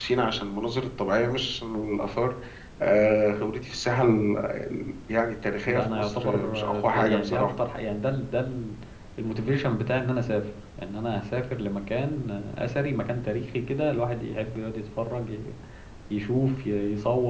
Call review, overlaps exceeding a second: present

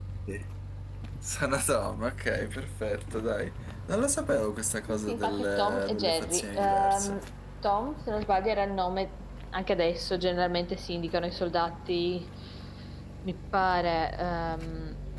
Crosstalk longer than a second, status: present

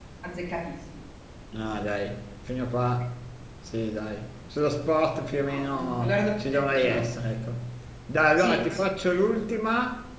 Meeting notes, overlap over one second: present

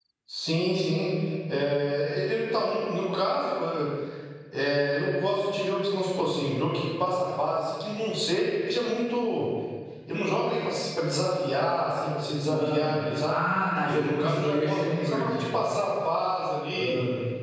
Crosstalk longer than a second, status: present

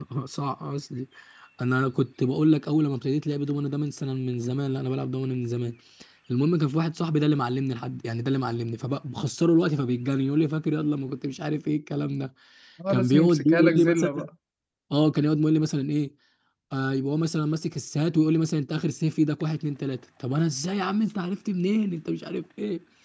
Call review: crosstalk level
present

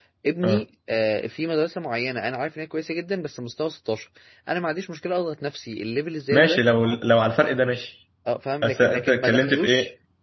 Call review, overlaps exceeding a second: present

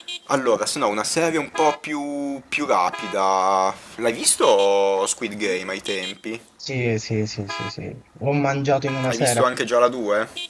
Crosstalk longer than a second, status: none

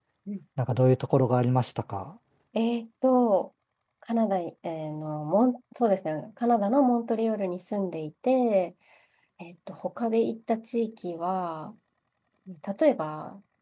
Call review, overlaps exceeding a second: none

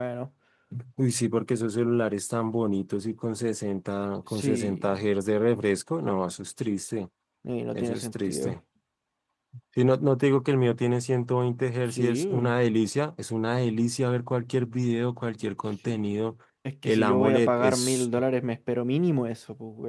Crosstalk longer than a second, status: present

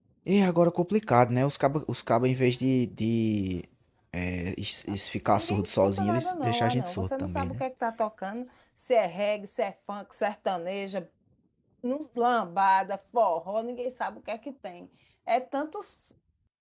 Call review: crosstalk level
present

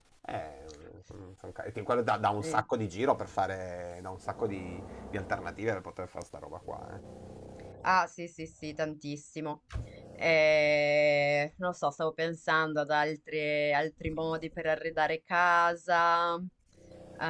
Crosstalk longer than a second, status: none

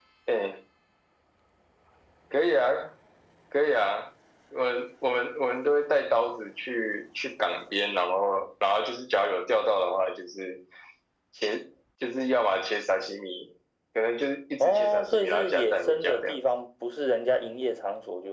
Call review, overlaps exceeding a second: present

